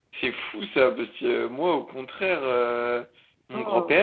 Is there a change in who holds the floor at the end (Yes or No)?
No